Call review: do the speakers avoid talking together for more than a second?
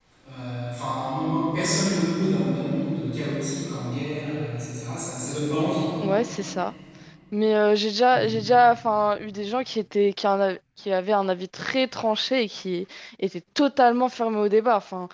Yes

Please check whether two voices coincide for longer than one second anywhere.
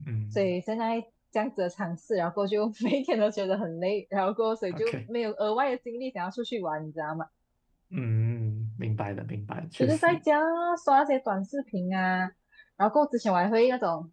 No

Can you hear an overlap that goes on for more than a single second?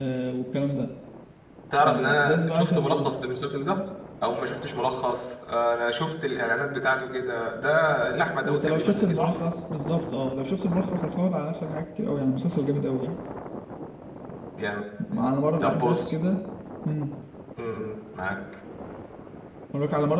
Yes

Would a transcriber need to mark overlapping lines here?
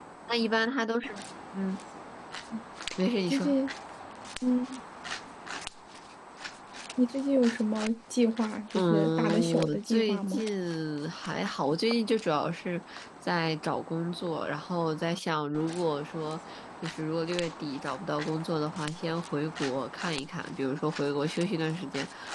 Yes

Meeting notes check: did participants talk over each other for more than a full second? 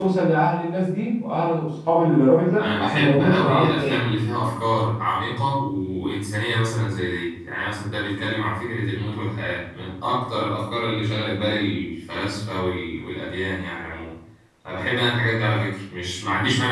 Yes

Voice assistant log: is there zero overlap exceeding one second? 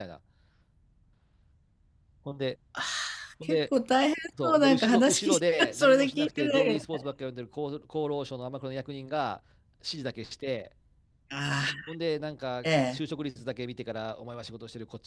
No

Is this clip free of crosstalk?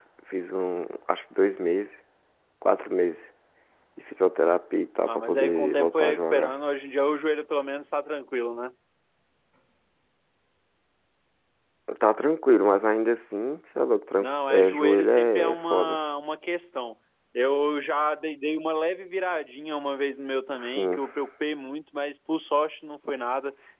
No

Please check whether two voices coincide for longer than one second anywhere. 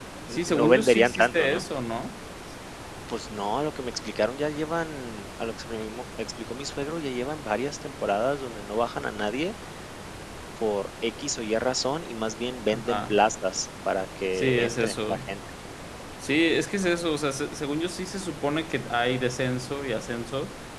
Yes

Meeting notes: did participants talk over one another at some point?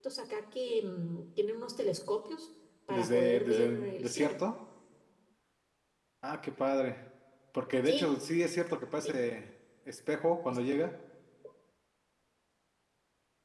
Yes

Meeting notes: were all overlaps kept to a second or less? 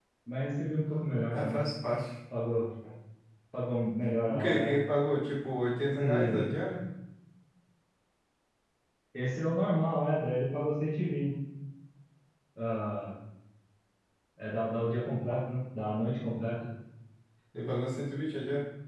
Yes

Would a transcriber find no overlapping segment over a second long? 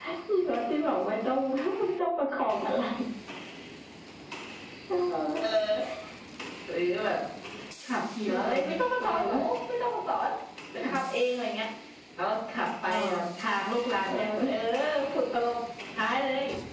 Yes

